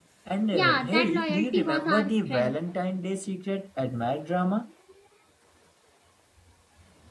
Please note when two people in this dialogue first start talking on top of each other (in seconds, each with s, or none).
0.5 s